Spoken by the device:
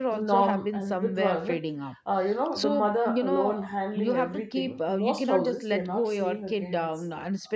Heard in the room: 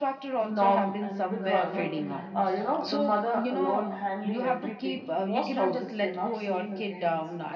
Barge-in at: 1.3 s

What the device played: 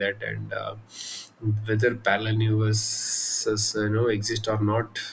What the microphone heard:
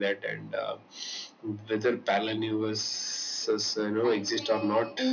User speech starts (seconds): 4.0 s

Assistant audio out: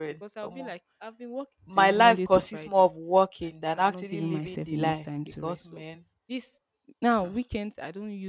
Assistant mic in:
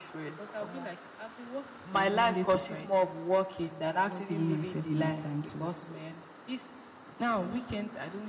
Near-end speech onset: none

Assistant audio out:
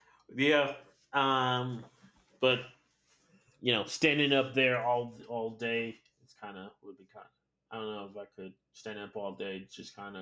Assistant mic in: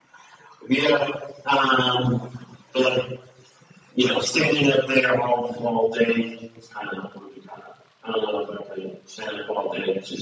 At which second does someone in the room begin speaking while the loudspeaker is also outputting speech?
none

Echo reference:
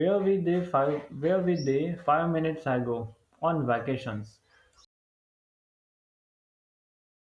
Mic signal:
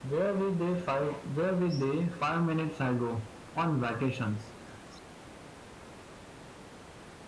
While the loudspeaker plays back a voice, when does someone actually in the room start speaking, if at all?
none

